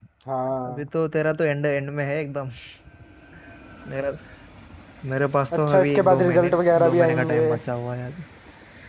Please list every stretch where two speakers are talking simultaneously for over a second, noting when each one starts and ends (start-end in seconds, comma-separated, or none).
5.6-7.5